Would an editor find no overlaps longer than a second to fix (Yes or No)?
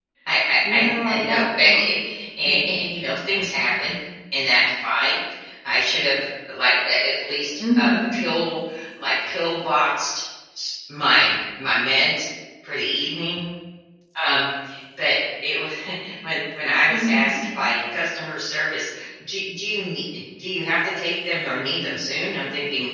No